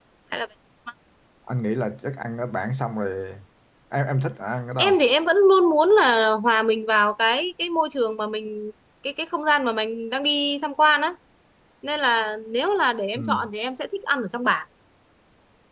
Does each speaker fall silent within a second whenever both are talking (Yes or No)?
Yes